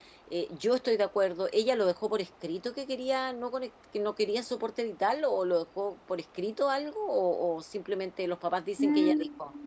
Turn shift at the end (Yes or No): Yes